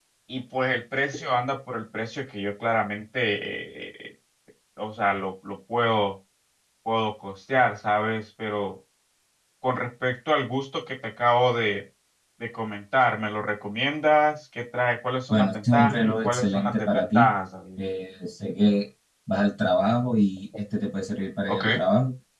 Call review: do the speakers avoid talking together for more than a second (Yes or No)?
No